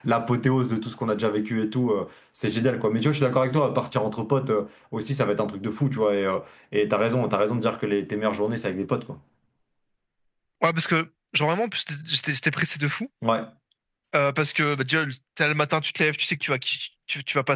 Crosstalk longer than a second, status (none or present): none